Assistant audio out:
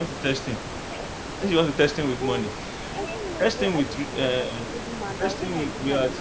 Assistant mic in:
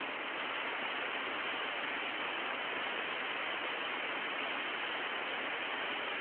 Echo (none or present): none